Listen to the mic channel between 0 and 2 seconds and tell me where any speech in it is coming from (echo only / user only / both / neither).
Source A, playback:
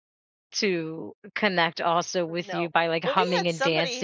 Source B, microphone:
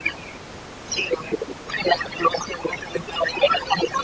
echo only